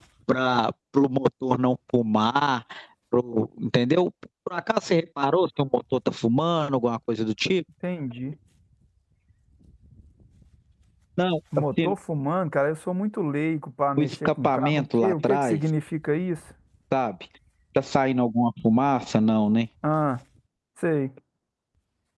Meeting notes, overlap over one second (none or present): present